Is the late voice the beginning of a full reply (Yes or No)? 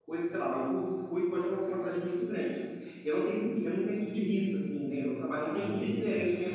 No